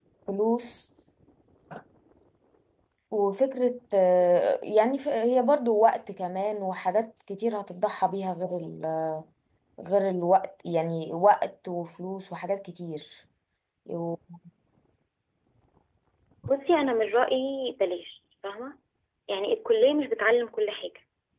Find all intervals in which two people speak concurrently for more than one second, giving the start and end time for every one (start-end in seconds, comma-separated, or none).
none